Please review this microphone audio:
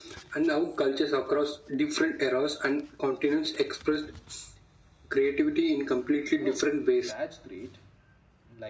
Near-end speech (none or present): present